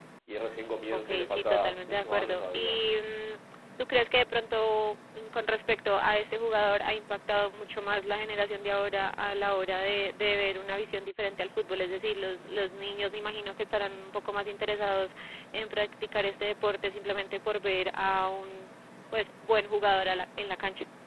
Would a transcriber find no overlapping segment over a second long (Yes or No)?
No